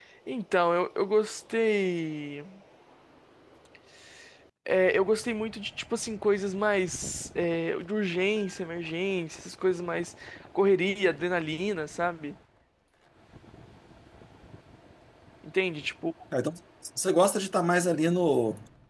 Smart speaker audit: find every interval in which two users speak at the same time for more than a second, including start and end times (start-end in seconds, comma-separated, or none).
none